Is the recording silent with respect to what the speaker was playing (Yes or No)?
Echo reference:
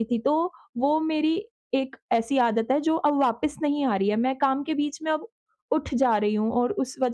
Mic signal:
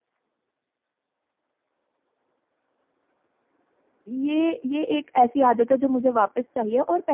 Yes